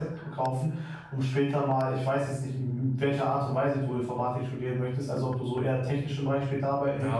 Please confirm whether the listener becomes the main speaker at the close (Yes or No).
Yes